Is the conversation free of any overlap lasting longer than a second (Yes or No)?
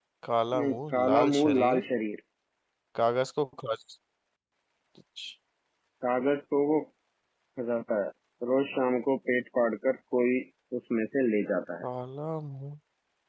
No